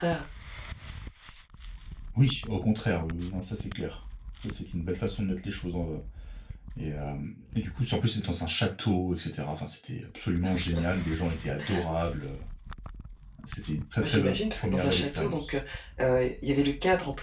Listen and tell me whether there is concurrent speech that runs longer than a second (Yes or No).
Yes